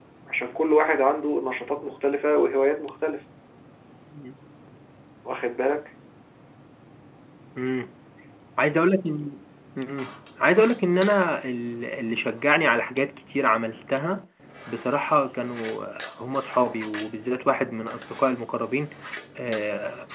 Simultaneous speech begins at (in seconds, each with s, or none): none